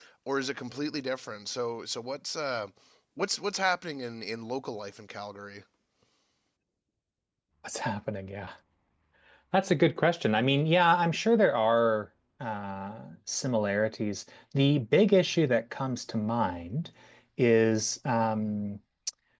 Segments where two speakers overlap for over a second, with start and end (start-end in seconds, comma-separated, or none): none